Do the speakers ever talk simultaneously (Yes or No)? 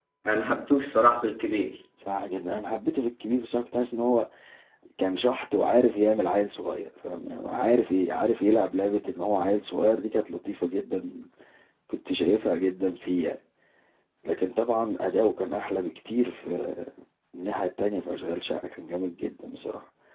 No